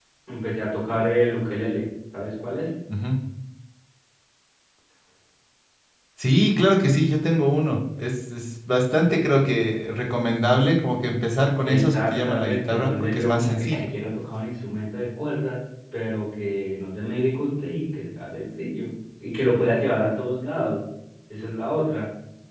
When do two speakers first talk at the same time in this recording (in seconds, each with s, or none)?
11.7 s